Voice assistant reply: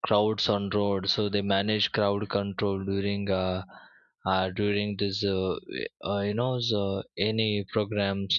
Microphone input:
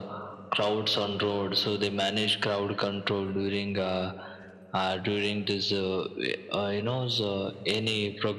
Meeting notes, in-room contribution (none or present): none